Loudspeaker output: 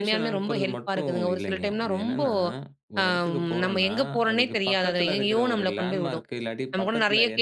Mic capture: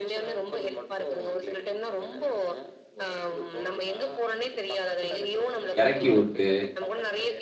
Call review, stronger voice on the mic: user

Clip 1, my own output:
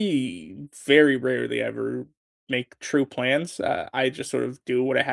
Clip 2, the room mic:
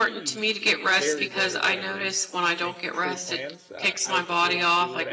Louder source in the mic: user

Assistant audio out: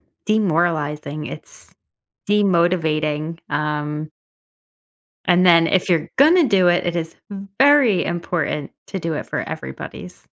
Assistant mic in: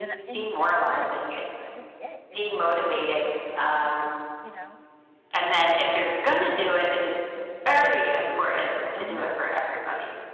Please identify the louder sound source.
echo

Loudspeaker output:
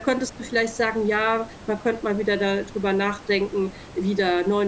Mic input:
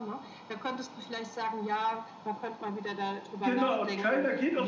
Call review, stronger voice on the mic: user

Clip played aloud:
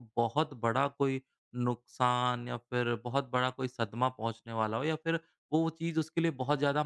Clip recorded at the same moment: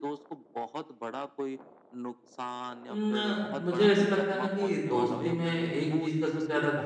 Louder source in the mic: user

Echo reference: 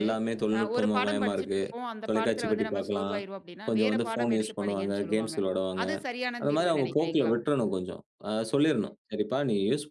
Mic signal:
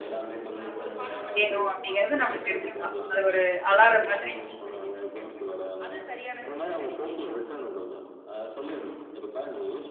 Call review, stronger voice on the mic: user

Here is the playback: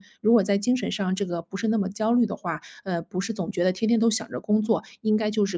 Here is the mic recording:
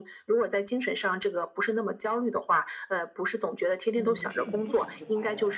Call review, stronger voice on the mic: echo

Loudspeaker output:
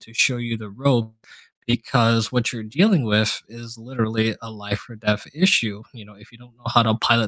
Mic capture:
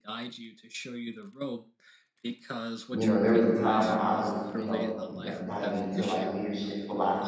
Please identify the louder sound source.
user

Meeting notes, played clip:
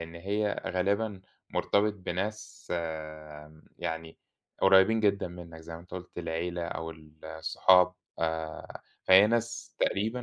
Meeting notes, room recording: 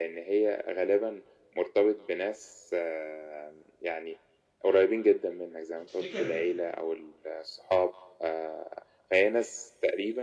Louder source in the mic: echo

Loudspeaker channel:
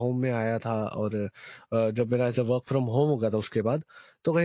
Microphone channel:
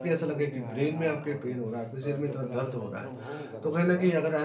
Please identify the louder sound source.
user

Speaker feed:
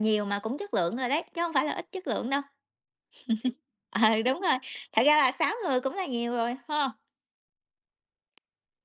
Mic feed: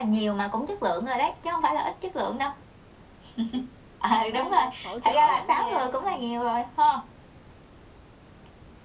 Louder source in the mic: echo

